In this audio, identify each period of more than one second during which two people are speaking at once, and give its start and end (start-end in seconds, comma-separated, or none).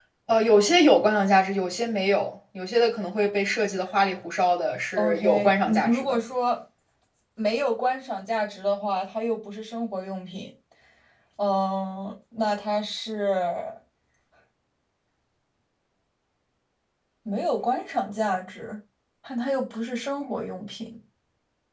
5.0-6.2